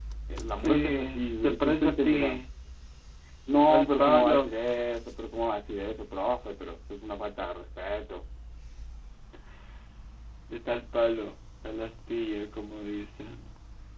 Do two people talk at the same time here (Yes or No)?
Yes